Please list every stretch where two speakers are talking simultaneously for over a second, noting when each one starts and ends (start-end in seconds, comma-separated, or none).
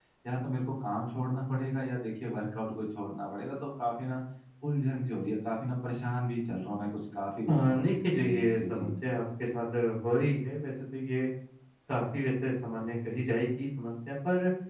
7.5-8.9